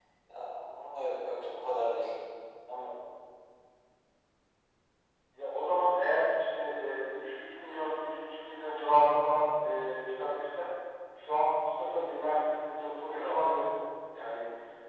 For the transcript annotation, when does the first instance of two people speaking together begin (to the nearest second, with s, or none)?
none